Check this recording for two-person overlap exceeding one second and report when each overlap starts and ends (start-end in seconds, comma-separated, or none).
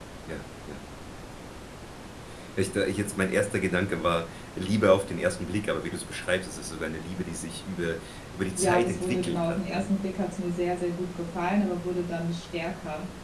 8.6-9.8